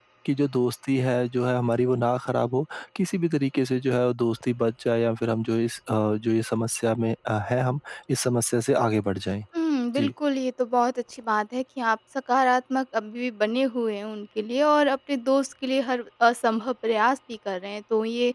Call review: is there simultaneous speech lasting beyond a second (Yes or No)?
No